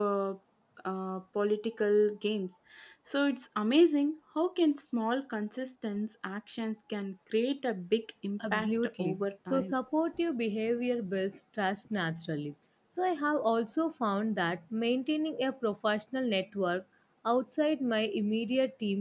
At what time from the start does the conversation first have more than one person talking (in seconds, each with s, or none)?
8.4 s